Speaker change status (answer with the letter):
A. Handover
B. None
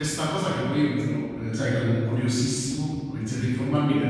B